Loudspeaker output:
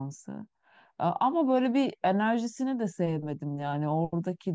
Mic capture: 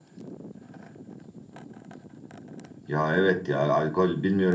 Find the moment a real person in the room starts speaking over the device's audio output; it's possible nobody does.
2.9 s

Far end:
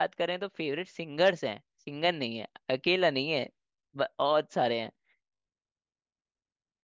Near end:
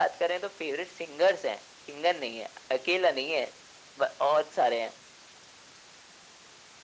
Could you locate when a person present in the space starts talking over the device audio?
none

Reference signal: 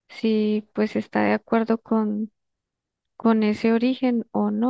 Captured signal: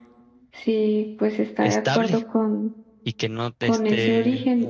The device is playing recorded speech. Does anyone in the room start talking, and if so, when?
1.6 s

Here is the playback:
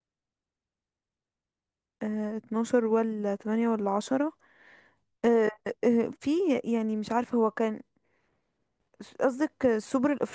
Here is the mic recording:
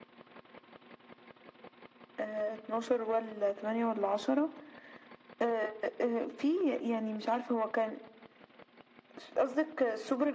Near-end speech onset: none

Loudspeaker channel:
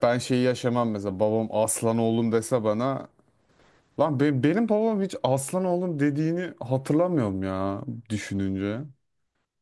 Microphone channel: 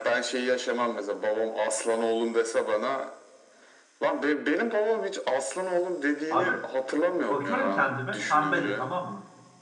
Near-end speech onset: 6.3 s

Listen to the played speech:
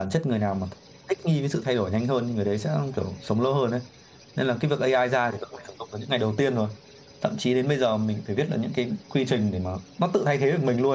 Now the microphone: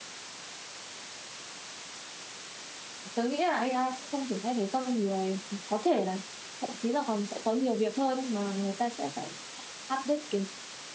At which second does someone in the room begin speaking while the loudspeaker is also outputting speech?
3.1 s

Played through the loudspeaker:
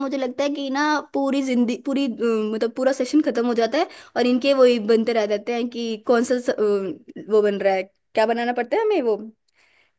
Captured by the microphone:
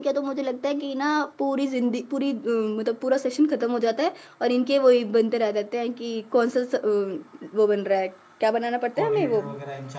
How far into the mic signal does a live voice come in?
8.9 s

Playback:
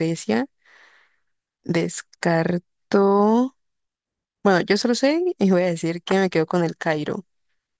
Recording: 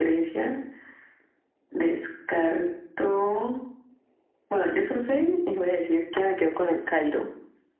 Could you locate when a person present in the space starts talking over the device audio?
none

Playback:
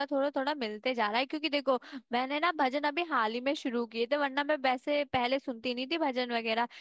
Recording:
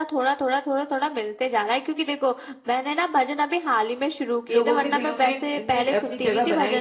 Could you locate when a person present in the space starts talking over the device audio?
4.5 s

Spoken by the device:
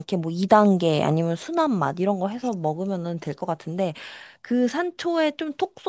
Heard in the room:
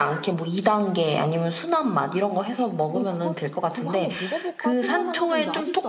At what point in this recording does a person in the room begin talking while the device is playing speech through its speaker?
2.9 s

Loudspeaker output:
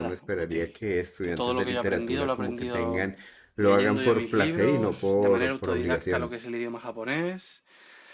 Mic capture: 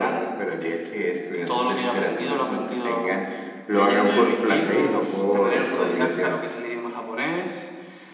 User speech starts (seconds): none

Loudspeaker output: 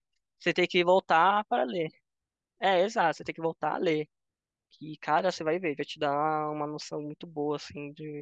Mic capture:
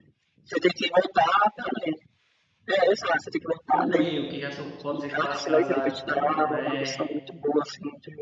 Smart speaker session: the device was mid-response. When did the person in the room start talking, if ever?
3.6 s

